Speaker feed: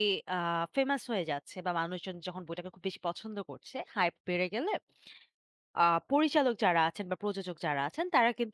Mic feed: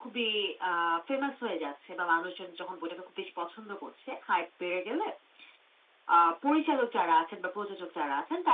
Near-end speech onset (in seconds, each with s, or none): none